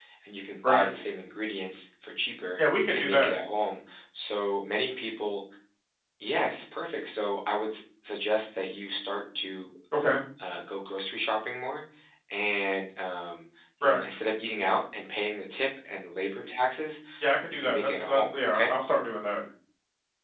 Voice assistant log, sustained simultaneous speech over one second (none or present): present